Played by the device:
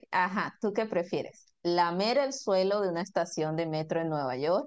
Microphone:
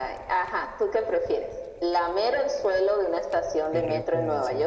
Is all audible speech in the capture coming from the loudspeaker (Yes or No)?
No